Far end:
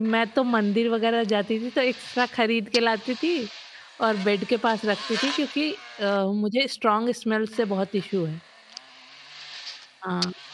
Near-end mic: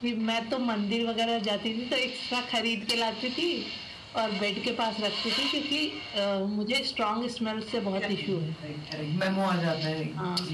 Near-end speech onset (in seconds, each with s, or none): 8.0 s